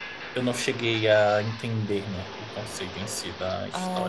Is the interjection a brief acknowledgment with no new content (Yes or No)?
No